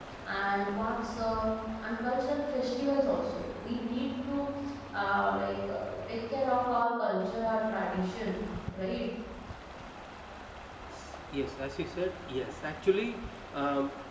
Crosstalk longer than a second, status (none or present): none